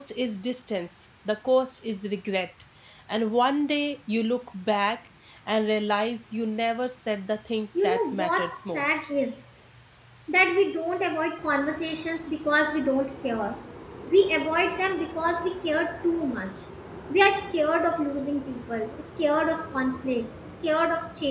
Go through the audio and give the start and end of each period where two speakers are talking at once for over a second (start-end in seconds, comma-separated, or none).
7.8-8.9